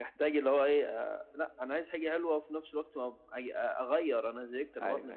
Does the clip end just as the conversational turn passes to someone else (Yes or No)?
Yes